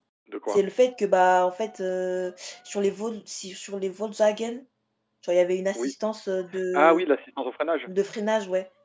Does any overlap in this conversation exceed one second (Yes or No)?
No